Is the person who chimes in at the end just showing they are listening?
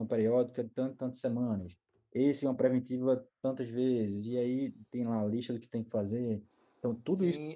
No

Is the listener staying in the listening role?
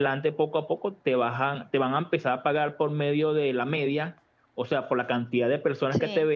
Yes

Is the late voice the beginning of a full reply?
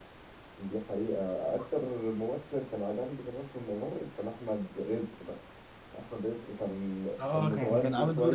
Yes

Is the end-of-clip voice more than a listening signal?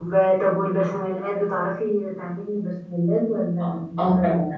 Yes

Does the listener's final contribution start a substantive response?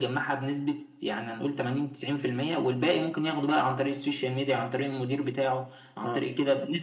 No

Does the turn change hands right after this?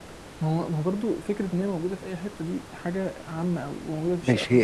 Yes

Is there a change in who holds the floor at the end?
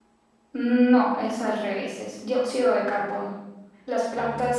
No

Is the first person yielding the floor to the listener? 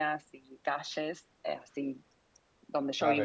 Yes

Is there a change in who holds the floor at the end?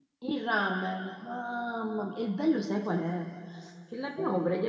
No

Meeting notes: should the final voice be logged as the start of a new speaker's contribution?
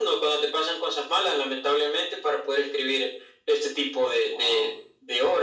No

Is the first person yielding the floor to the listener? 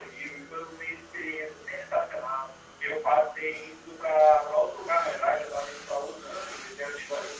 No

